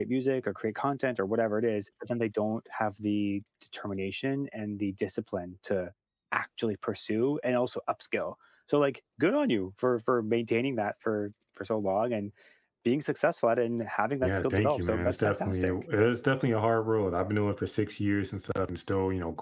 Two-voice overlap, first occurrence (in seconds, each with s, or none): 14.2 s